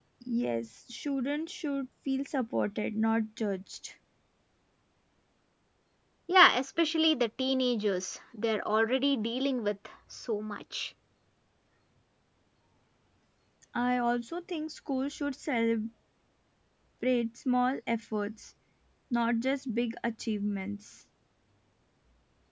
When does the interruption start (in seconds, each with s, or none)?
none